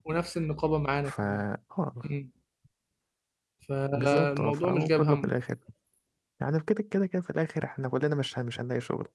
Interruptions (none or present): present